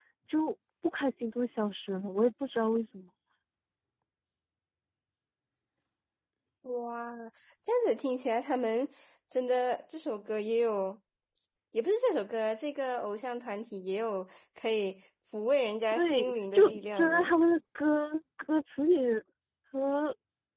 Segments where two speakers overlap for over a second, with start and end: 15.9-17.3

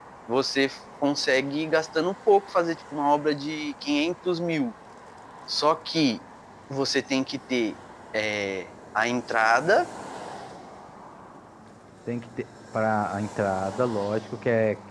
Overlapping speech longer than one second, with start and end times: none

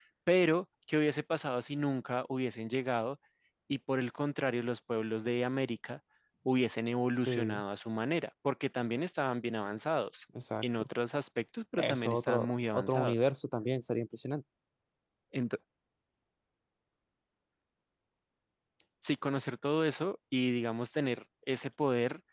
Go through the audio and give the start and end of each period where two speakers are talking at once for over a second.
11.8-13.1

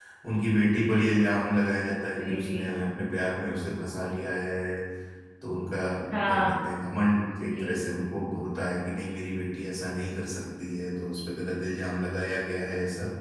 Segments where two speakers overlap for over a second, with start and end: none

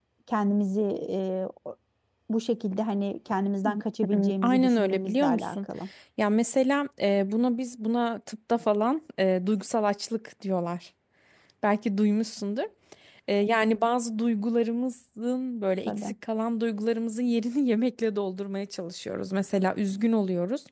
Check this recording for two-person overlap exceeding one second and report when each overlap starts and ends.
4.1-5.6

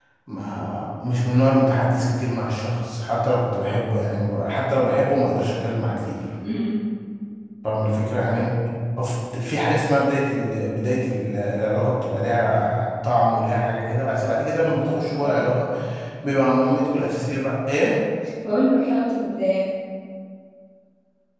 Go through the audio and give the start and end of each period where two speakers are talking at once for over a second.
none

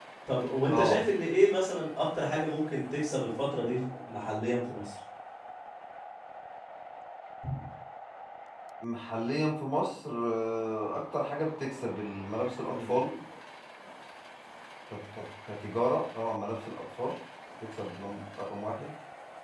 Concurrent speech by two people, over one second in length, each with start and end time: none

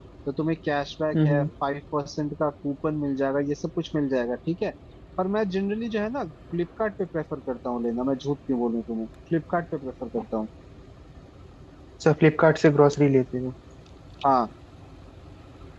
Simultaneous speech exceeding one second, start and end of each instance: none

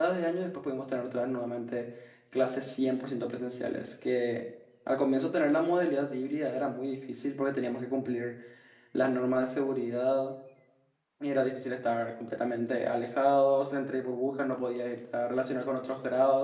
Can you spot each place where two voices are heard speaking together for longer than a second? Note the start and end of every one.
none

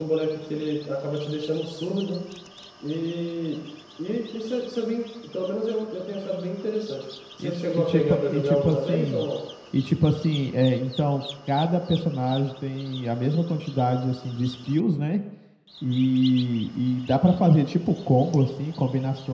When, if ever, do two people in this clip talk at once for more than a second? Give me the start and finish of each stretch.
7.4-9.2

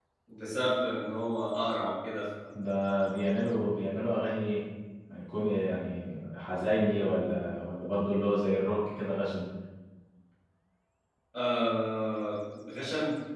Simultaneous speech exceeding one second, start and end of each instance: none

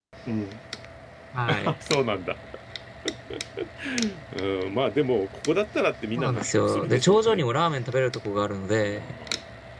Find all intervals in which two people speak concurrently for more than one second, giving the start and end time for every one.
6.2-7.4

